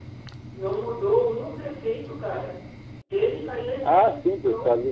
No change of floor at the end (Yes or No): No